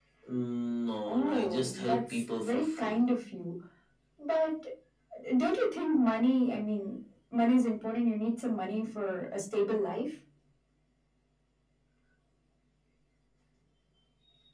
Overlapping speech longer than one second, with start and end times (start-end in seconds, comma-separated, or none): 1.1-3.0